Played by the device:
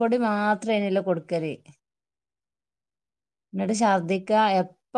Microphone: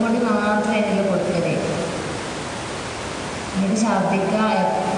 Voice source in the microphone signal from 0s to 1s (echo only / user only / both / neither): echo only